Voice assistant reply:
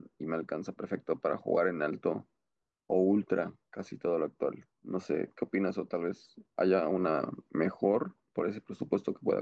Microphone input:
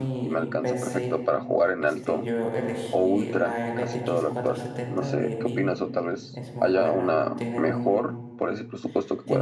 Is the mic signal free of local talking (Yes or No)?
No